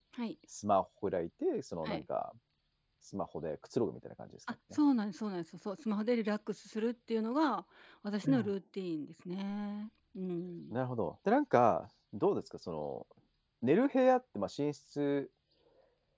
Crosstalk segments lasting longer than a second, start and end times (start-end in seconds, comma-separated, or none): none